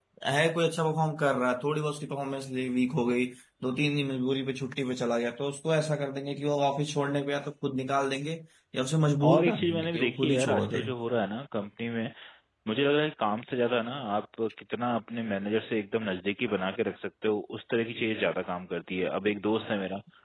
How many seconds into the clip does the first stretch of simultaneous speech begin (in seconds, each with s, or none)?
9.2 s